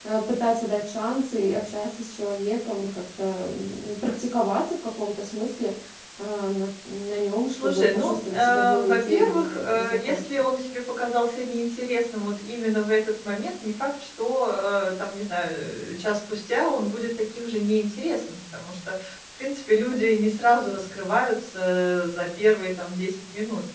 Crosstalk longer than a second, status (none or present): present